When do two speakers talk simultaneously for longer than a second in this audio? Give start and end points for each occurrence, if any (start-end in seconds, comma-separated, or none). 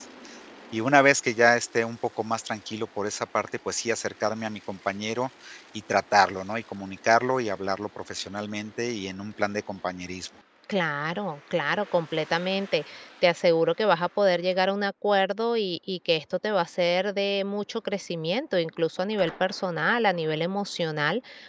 none